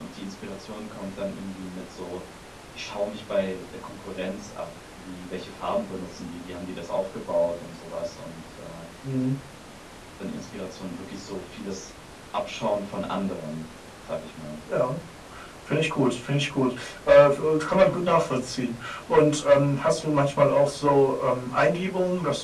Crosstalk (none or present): none